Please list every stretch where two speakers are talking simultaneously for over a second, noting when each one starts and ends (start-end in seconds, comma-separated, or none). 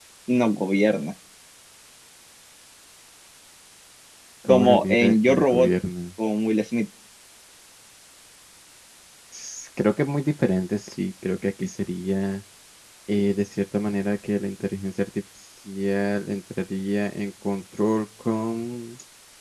4.5-5.7